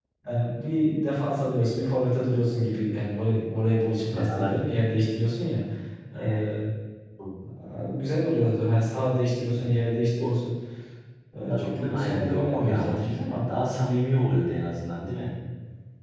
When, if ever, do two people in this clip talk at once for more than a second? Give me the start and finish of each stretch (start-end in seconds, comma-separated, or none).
11.5-13.2